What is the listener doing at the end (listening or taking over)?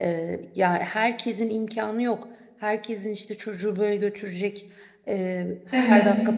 listening